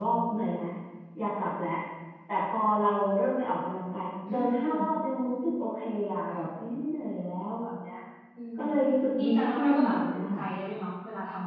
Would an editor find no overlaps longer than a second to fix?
No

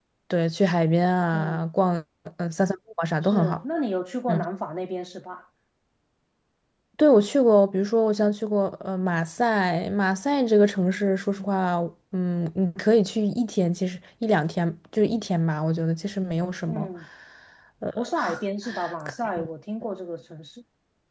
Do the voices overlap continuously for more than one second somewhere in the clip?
No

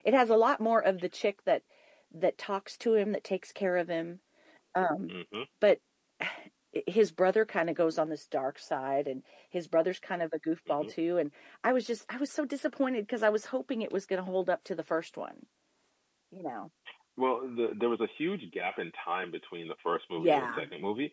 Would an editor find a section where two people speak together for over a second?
No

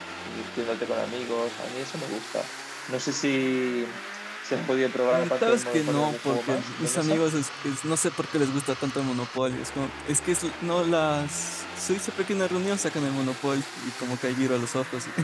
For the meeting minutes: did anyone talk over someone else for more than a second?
Yes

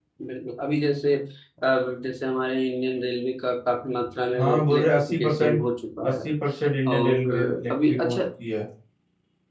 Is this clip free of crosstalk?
No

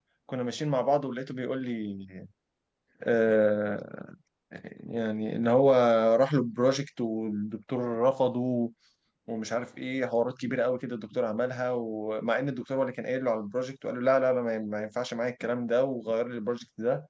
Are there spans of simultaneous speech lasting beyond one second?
No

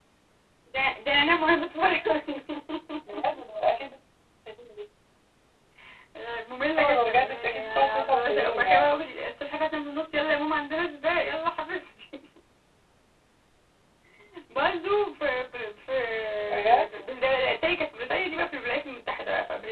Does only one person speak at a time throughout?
No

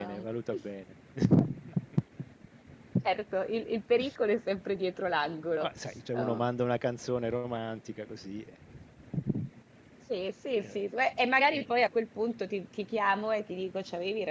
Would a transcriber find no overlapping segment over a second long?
Yes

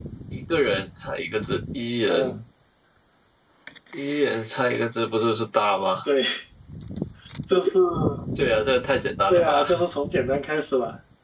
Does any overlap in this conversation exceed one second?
No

